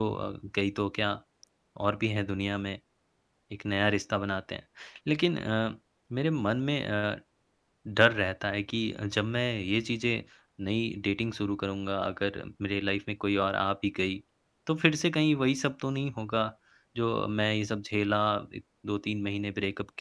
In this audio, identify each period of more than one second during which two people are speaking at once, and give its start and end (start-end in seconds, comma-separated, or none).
none